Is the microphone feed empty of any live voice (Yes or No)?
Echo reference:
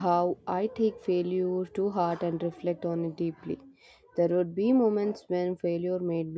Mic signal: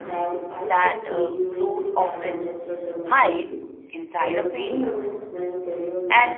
No